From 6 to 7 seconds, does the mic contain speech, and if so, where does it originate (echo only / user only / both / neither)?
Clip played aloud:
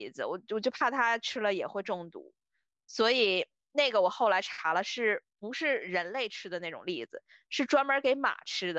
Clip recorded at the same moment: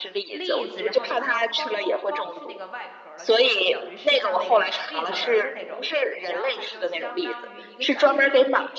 both